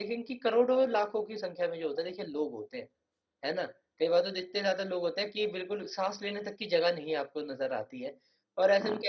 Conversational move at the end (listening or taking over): listening